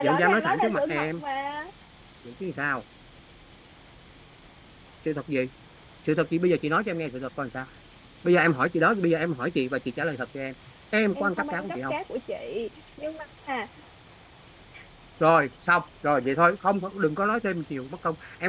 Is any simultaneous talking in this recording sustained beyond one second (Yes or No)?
Yes